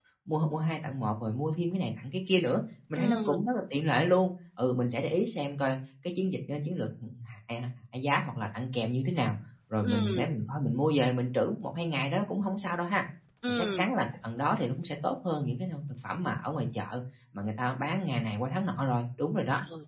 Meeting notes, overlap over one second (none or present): none